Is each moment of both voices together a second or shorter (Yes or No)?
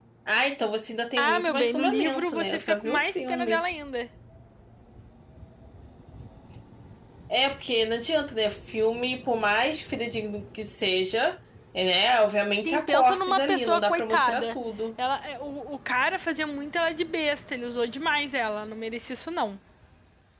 No